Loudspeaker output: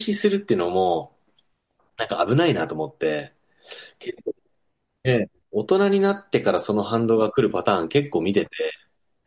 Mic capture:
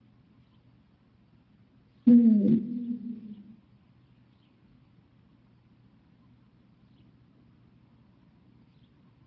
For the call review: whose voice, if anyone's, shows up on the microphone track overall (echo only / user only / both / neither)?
user only